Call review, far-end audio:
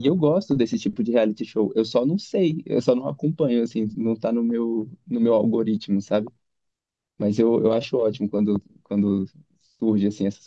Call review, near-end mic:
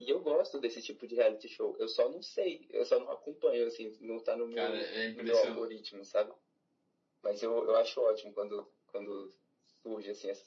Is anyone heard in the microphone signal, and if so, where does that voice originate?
both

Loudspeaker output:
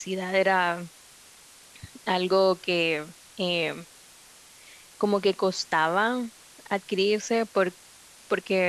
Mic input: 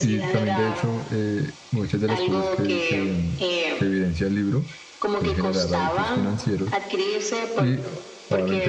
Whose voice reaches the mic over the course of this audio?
both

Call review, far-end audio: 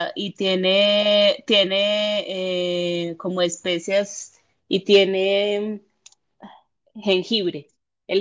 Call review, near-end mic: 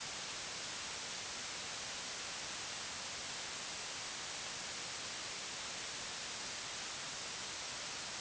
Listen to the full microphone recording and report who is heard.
neither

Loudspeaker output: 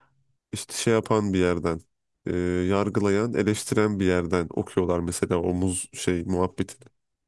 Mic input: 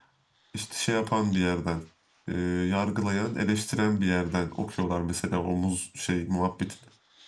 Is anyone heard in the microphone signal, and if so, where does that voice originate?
echo only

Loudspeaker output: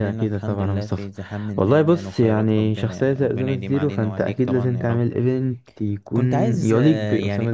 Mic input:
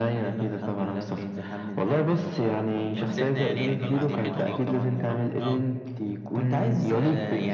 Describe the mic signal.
both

